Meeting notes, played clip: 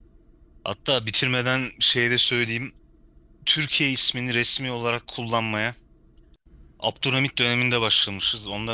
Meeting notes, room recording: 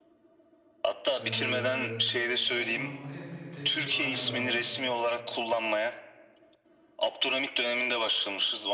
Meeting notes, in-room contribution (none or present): present